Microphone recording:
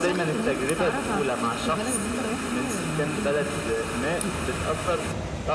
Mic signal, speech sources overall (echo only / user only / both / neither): echo only